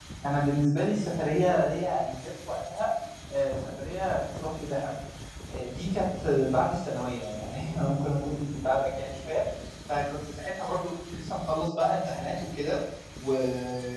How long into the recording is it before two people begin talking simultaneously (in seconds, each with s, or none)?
none